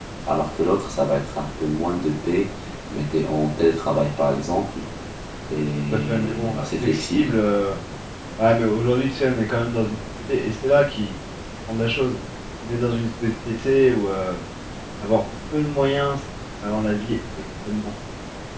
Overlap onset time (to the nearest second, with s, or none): 6 s